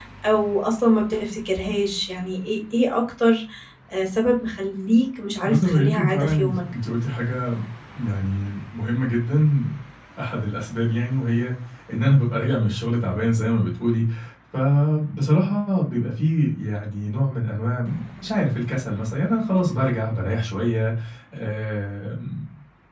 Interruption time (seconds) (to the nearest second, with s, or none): 5 s